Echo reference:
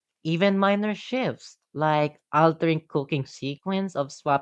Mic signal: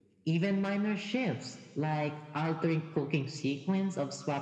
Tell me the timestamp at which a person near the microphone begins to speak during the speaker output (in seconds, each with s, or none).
none